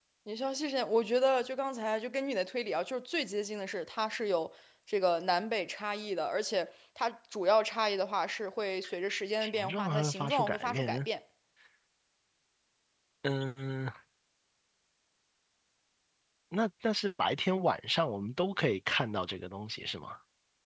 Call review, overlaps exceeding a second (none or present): present